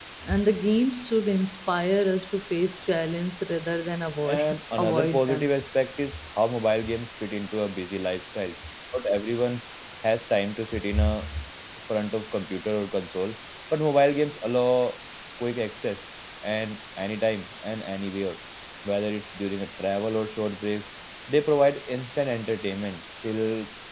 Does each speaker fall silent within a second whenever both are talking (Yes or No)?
No